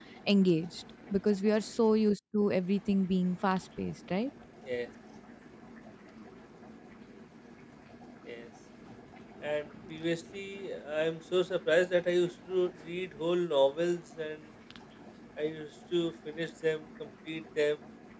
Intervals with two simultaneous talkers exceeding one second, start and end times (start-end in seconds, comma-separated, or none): none